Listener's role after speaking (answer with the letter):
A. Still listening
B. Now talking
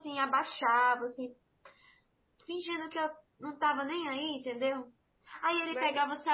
A